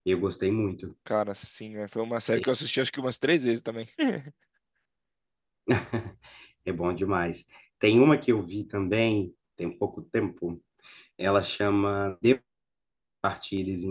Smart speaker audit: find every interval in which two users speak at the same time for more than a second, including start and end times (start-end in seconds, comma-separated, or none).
none